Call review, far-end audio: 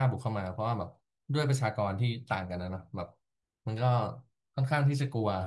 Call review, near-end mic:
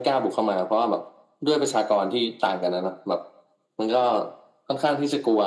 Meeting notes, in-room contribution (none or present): none